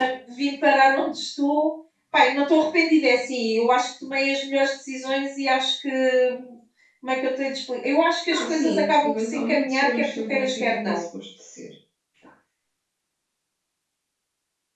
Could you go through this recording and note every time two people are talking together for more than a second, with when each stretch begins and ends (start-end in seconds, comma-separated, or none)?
8.3-11.0